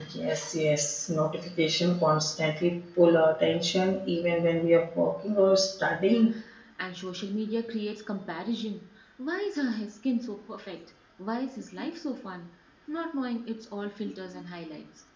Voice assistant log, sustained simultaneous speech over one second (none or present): none